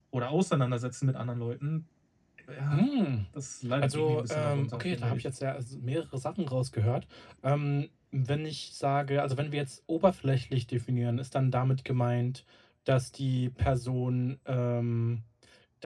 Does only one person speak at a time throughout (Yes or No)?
No